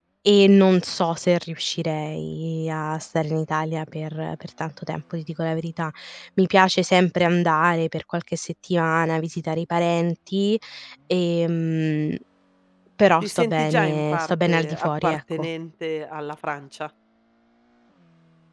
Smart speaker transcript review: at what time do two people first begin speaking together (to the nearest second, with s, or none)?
13 s